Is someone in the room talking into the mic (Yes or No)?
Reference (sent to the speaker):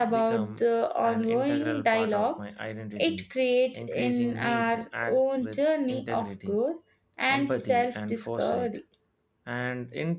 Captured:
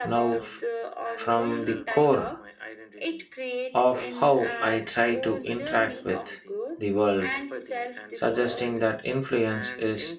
Yes